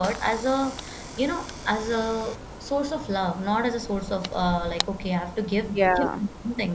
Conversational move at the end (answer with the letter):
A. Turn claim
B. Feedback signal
B